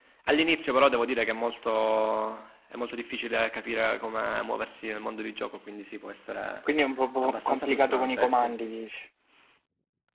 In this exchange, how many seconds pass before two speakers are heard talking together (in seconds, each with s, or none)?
7.2 s